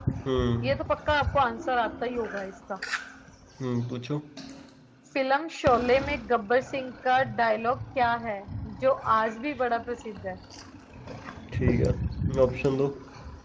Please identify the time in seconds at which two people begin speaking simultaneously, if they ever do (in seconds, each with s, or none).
none